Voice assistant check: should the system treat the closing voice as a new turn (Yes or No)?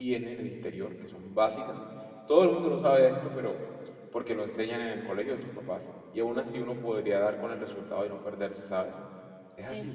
Yes